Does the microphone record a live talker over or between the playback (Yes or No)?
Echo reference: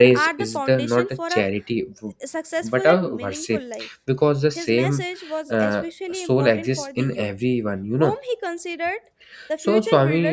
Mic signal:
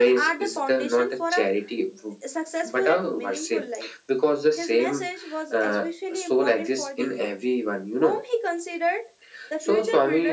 No